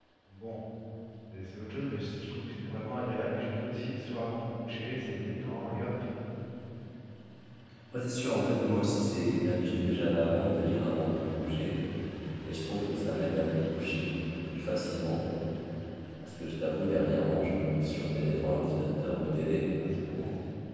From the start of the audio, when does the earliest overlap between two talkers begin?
none

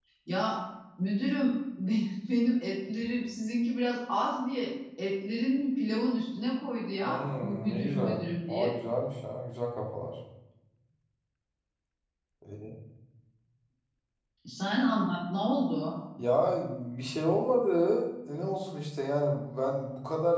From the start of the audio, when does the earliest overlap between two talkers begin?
7 s

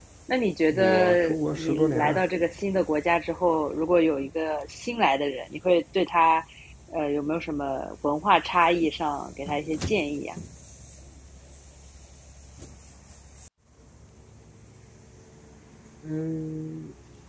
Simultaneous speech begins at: 1 s

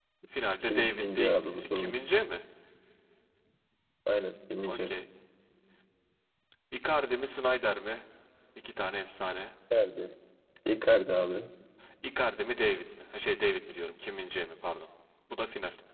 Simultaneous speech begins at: 1 s

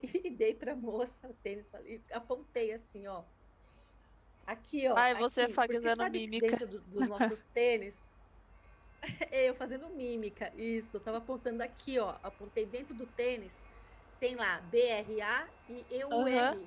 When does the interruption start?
5 s

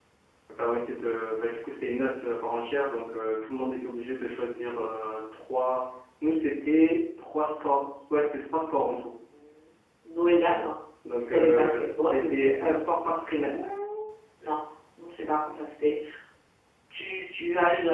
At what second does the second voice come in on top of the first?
11 s

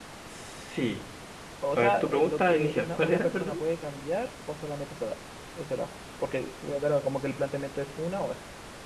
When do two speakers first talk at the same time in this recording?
2 s

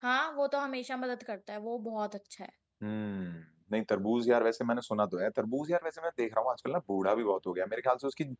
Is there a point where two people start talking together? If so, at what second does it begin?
none

